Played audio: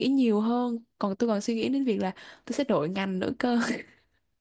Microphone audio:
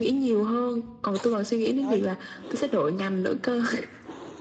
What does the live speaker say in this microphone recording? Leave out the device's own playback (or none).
Trời